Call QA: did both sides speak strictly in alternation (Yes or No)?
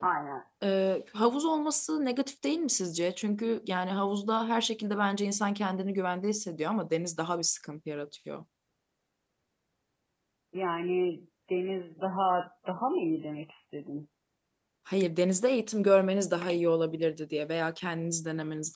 Yes